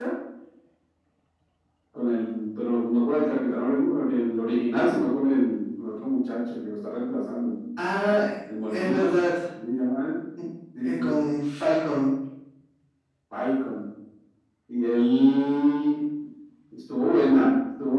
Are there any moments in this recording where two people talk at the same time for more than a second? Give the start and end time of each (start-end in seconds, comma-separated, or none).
none